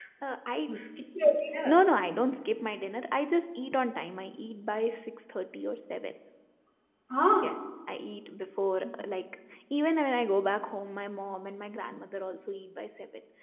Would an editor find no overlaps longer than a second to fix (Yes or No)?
Yes